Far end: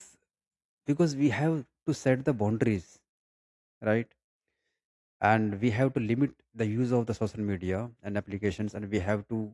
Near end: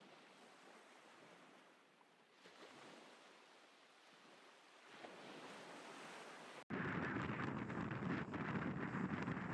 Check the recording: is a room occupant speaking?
No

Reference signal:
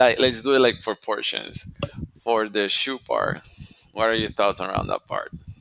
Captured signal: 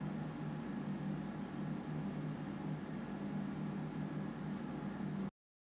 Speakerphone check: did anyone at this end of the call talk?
No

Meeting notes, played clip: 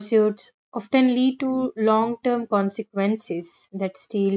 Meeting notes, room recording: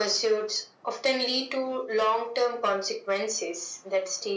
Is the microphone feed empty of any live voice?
Yes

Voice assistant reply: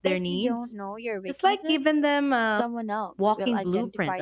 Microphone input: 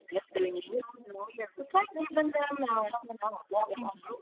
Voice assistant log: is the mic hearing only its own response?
Yes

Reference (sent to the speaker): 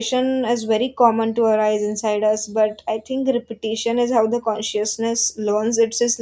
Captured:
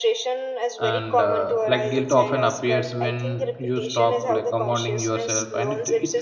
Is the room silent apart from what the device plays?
No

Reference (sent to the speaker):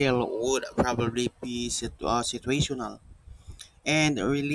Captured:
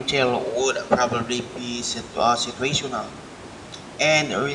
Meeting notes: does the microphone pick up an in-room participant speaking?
No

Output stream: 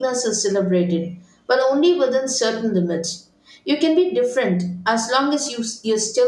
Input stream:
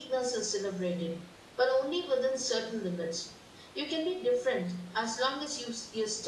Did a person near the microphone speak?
No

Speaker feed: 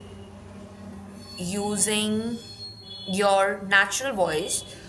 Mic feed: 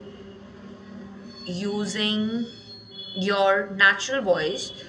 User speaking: No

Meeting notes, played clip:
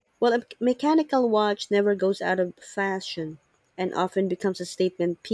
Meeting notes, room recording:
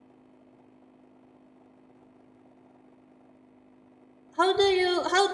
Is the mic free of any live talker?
No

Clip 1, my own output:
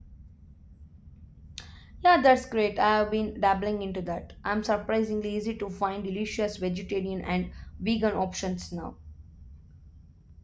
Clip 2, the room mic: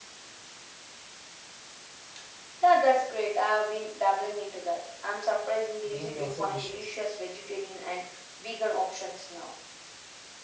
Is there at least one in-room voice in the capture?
Yes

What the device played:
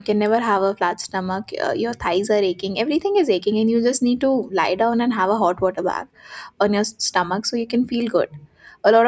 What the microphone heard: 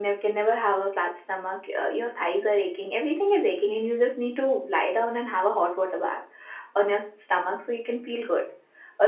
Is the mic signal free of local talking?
Yes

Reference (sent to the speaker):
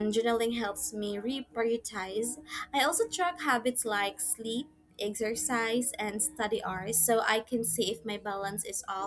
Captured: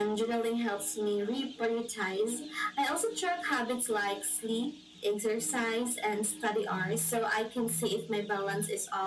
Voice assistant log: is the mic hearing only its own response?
Yes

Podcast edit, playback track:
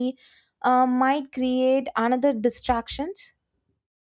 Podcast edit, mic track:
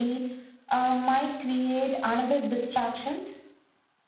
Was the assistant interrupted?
No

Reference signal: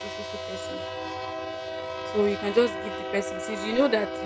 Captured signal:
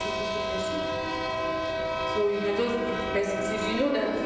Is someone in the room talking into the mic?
No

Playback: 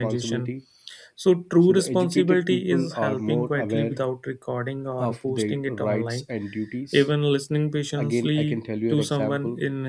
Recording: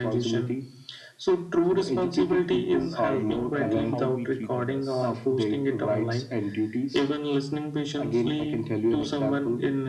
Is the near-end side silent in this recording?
No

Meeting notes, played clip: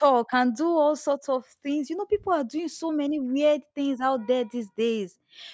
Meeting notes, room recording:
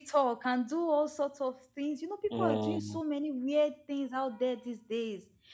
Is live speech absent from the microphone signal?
No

